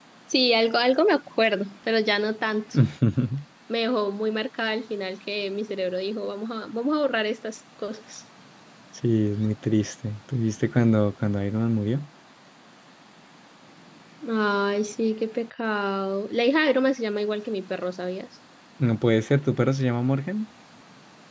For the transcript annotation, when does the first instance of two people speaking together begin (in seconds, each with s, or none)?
none